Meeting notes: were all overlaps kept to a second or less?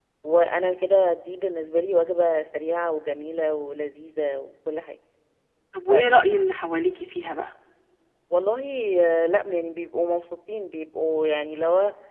Yes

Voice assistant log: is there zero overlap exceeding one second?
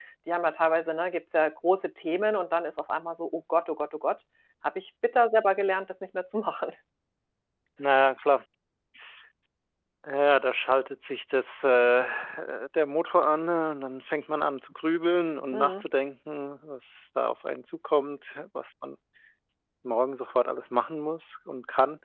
Yes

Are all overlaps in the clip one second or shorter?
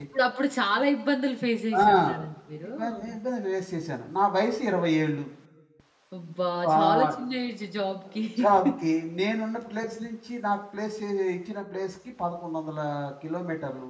Yes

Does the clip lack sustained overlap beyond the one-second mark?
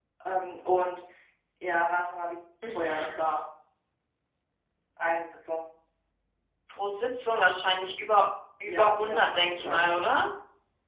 No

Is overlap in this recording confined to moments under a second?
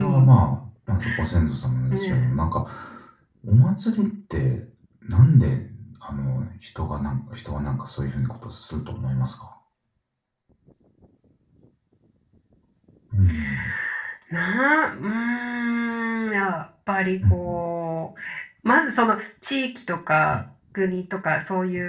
Yes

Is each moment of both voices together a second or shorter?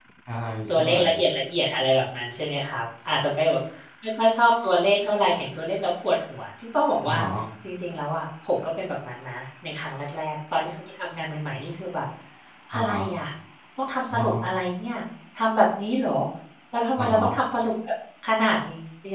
Yes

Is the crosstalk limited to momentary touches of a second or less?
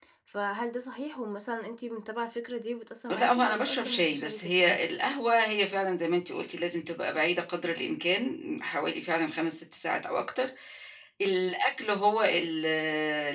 No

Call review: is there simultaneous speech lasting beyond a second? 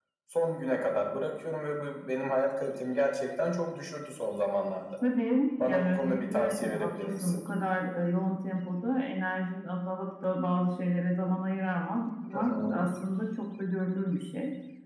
Yes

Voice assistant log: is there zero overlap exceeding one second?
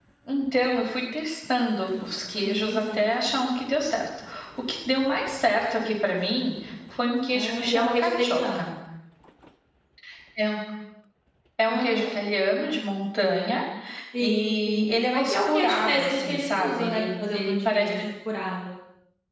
No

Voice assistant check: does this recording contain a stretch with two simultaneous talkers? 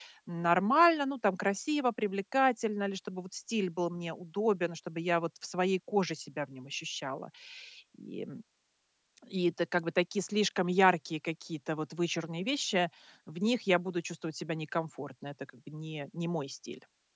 No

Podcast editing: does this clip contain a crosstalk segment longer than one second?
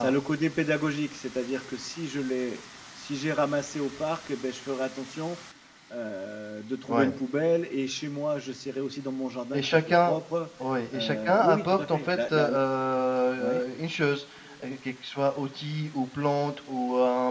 Yes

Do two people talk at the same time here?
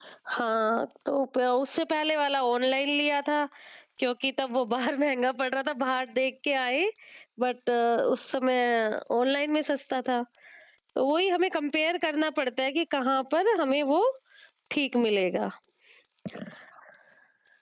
No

